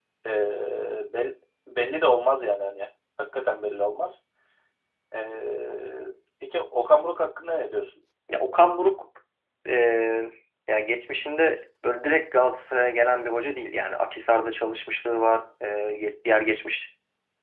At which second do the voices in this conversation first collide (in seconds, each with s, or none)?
none